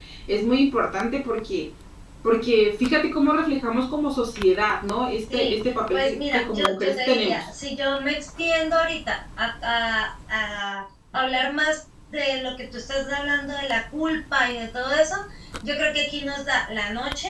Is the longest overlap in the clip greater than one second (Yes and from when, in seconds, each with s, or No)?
Yes, from 5.3 s